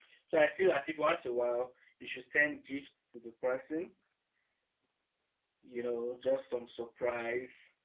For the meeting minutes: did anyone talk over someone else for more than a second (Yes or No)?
No